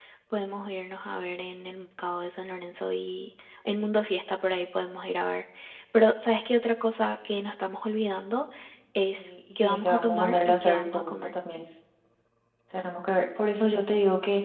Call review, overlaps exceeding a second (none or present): present